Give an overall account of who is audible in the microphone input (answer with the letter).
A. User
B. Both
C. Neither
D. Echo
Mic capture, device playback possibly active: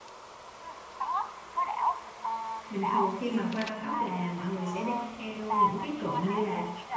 B